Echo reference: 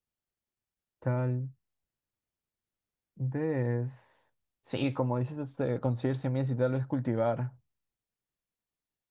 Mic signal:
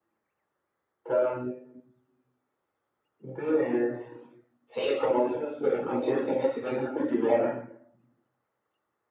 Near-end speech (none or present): none